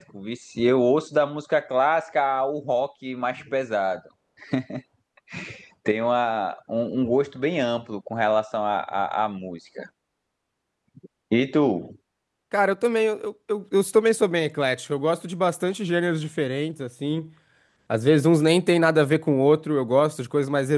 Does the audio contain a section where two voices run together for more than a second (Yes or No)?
No